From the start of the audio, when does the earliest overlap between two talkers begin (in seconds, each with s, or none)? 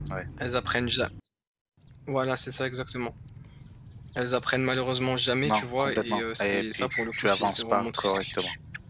5.4 s